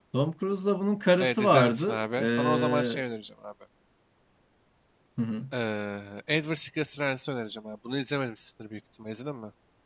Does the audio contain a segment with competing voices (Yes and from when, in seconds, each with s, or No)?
Yes, from 1.2 s